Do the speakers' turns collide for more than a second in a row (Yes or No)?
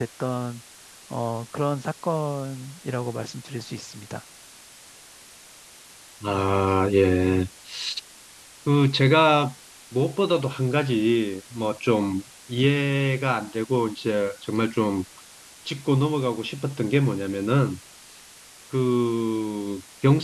No